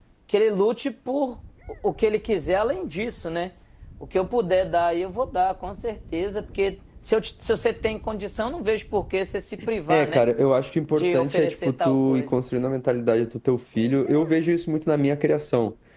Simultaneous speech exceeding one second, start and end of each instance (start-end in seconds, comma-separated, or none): 10.9-12.3